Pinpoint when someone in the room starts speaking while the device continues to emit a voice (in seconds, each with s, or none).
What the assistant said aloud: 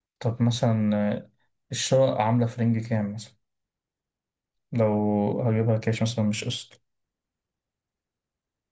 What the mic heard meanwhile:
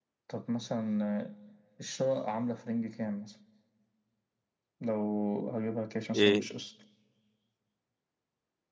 6.1 s